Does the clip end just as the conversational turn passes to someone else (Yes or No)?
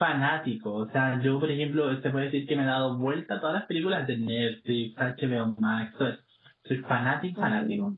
Yes